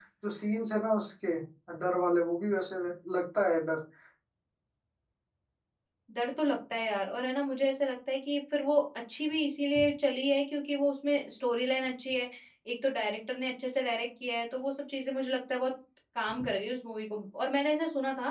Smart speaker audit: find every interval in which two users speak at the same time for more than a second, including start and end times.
none

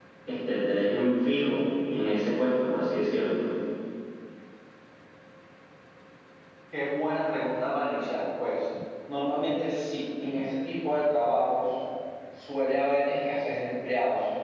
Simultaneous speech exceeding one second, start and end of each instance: none

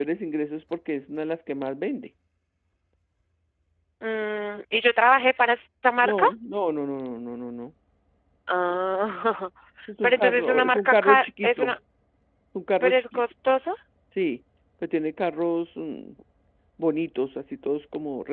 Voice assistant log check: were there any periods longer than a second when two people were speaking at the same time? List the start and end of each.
10.0-11.8

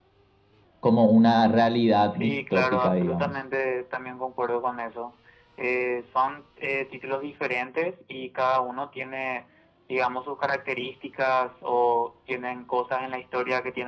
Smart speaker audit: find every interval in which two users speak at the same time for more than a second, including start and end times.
2.1-3.3

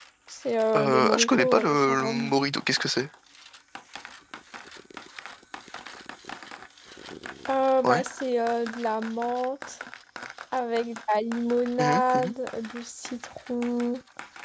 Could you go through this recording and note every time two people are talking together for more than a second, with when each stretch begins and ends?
0.8-2.3

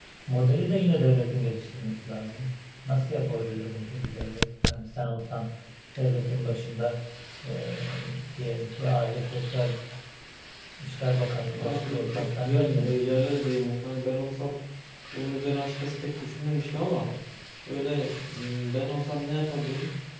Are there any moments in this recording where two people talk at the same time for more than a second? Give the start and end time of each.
11.6-13.2

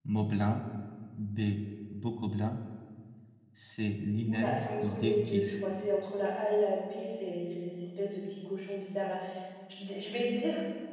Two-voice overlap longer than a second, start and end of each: 4.3-5.5

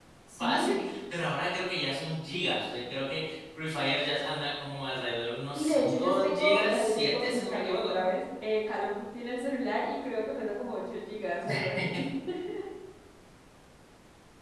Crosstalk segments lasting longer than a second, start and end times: 5.5-8.0

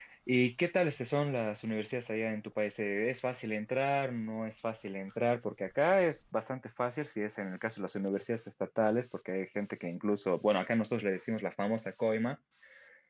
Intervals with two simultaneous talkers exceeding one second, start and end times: none

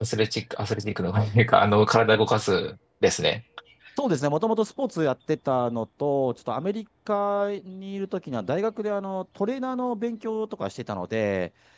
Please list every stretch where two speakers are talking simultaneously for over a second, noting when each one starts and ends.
none

